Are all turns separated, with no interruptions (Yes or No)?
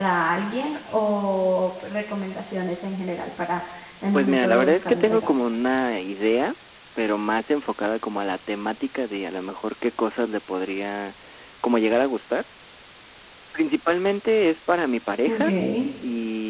No